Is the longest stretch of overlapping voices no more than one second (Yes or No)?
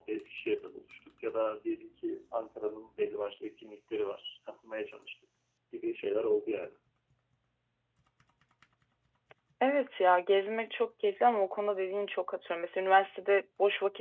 Yes